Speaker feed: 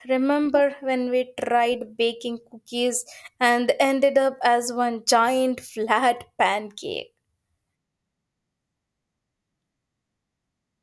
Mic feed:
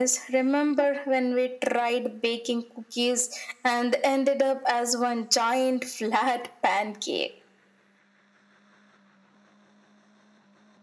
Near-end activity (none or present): none